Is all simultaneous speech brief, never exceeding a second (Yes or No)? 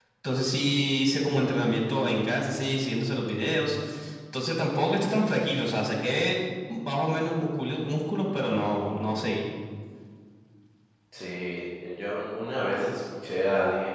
Yes